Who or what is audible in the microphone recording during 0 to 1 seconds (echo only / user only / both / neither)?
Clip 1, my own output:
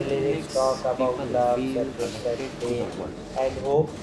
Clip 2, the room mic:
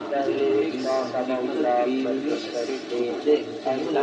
both